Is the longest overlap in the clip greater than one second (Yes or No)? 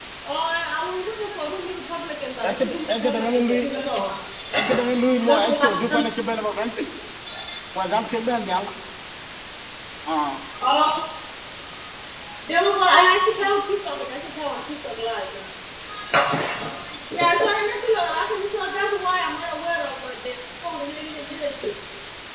Yes